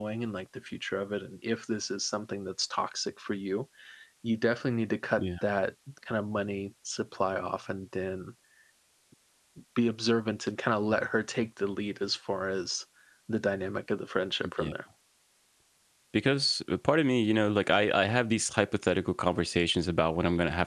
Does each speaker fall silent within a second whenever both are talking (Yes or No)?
Yes